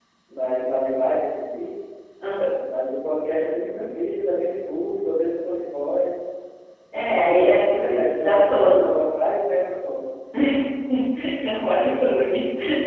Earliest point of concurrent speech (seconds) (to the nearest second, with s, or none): 7 s